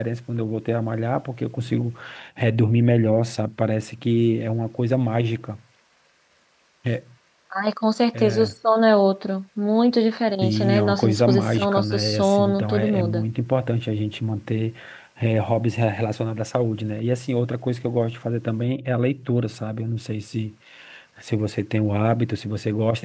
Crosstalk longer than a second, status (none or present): present